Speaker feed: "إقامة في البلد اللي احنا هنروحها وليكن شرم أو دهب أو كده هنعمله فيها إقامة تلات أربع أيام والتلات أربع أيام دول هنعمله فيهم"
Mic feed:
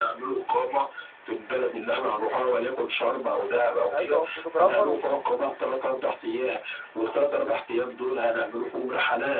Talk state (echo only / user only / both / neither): both